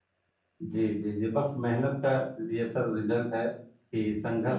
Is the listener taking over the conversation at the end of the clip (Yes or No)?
No